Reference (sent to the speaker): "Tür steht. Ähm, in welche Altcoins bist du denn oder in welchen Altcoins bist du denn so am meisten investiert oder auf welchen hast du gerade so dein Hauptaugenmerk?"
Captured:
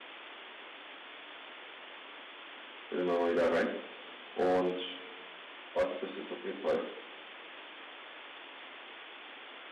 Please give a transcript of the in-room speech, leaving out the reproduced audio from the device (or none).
bin immer mal wieder rein und warte, bis jetzt auf jeden Fall